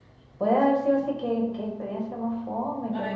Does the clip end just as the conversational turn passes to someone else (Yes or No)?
Yes